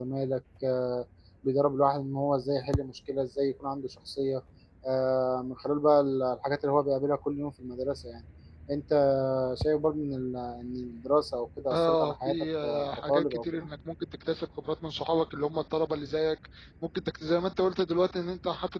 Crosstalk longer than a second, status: present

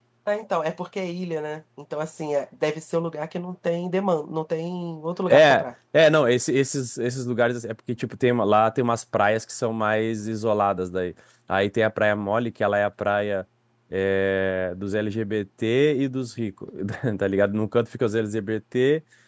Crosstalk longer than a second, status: none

